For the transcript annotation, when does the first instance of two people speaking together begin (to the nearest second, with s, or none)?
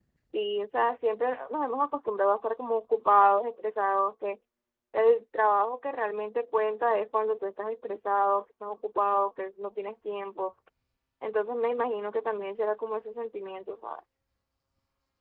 none